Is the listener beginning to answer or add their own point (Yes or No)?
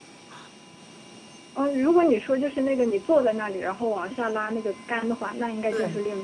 No